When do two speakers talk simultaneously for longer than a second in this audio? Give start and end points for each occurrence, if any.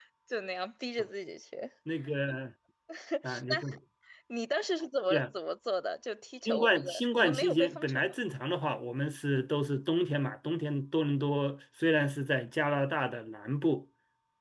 6.4-8.1

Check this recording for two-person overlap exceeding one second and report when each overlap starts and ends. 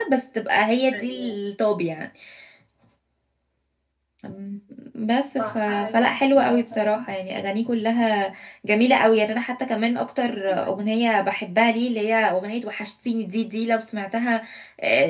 5.5-7.0

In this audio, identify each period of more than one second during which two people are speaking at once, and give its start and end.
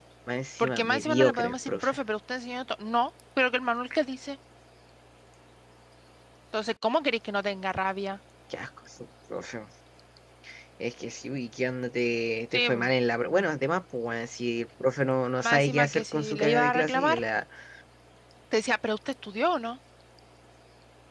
0.6-2.0, 15.5-17.2

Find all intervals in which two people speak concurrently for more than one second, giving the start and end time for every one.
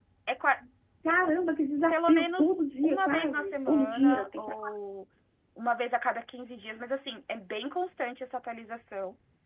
1.9-4.5

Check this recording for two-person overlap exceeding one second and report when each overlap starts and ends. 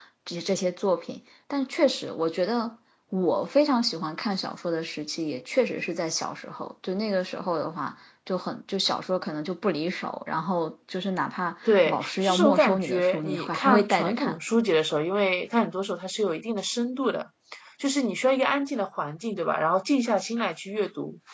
11.7-14.4

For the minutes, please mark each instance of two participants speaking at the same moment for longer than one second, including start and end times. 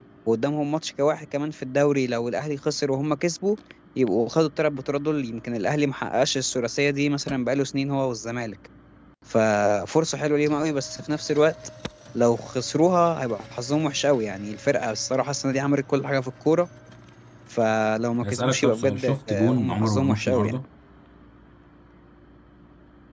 18.2-20.6

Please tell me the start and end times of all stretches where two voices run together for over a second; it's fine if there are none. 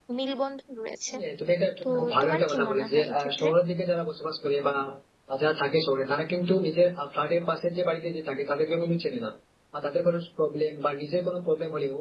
1.8-3.5

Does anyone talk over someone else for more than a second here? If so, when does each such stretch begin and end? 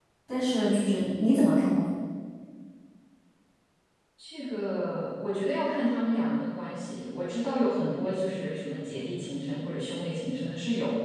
none

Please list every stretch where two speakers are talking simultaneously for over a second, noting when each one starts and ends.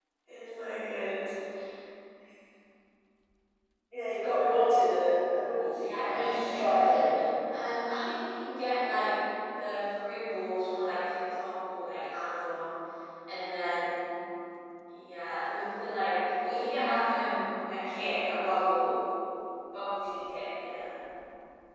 5.7-7.1

